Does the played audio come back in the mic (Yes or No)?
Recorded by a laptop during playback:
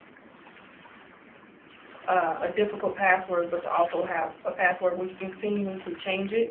No